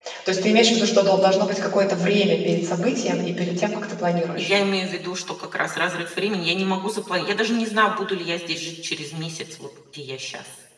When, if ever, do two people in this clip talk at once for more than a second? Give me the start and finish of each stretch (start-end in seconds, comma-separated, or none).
none